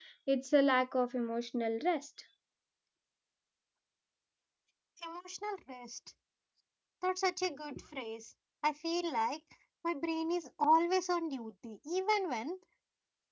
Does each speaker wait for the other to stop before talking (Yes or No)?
Yes